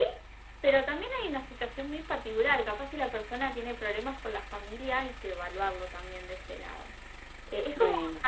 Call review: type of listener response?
listening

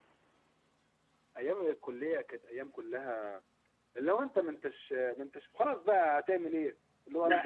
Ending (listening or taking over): taking over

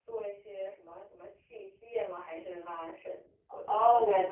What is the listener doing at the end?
taking over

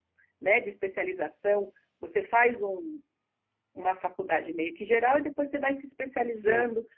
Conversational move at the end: listening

